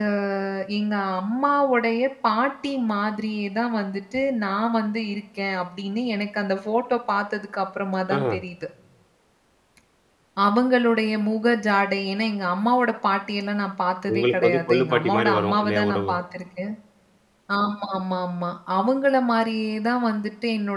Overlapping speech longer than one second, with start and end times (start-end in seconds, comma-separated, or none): 14.1-16.2